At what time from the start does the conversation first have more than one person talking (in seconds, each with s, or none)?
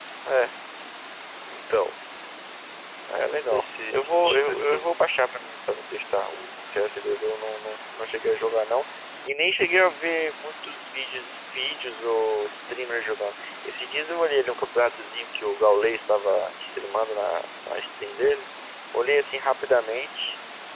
3.4 s